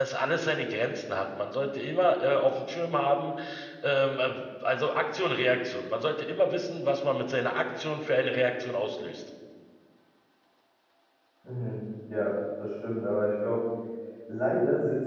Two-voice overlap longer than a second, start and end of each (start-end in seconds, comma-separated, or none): none